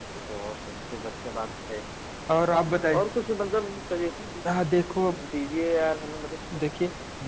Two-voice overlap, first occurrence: none

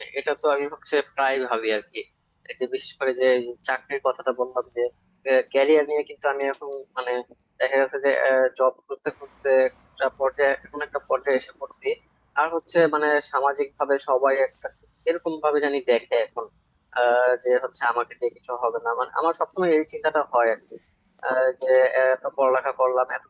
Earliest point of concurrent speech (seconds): none

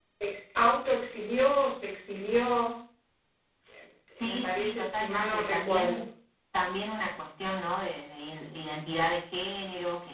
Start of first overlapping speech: 4.2 s

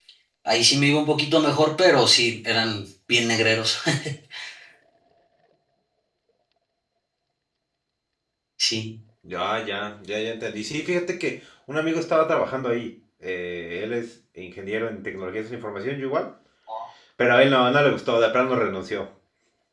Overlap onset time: none

